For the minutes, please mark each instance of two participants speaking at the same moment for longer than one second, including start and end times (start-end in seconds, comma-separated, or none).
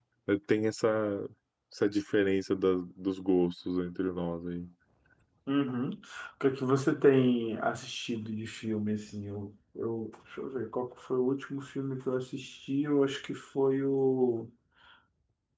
none